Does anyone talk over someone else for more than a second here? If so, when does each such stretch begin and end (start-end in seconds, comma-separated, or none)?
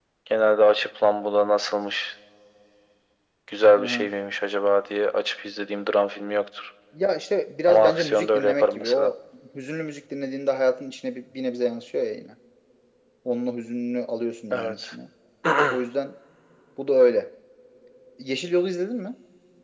7.7-9.1